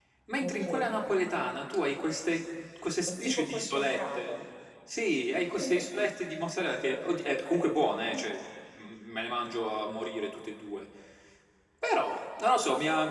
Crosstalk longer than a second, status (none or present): present